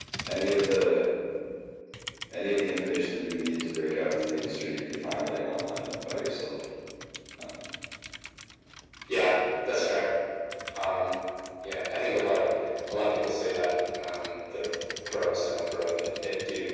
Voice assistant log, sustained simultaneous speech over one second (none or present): none